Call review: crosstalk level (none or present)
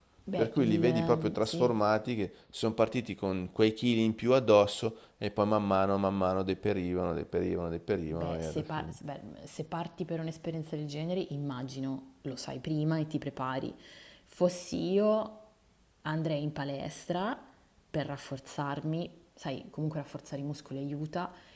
present